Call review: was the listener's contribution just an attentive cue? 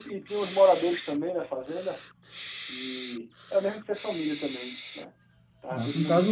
No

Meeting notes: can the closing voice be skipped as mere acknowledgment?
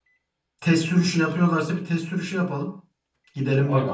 No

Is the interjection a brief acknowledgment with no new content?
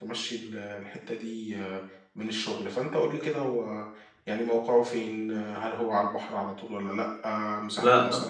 Yes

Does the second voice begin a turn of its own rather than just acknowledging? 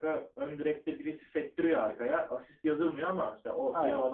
Yes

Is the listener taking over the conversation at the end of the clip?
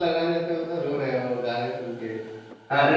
Yes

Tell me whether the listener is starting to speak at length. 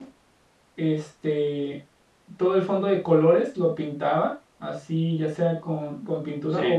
No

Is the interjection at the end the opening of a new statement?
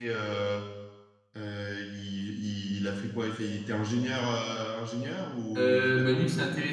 Yes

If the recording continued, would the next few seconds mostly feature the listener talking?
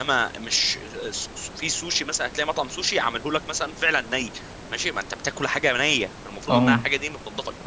No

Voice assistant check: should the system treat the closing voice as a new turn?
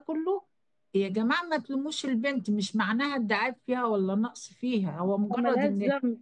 No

